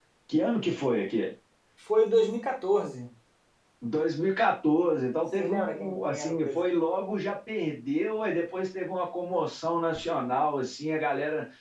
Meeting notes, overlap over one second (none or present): present